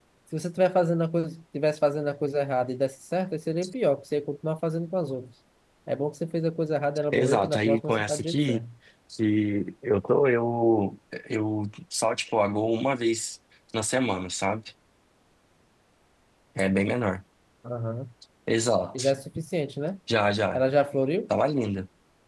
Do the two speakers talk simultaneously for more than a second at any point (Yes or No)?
Yes